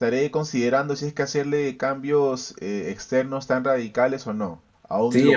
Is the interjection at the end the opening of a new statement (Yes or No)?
Yes